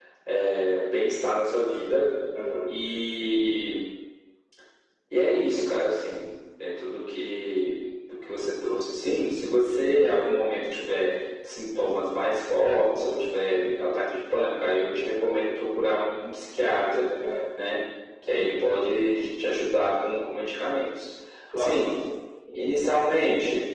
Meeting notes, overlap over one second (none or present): none